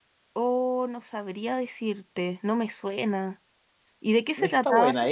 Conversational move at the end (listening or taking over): taking over